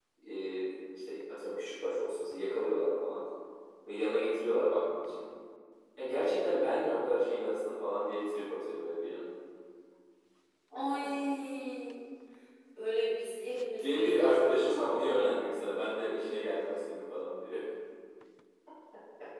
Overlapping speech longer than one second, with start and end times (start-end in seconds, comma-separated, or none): 13.8-15.2